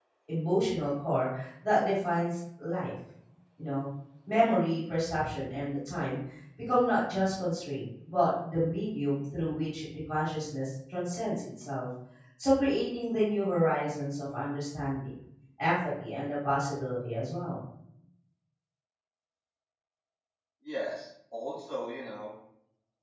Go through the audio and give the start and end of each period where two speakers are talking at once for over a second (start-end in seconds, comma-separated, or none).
none